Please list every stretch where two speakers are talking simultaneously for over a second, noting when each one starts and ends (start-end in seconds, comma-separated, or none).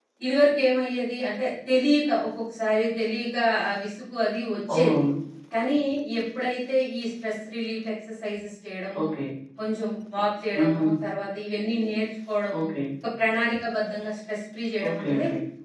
none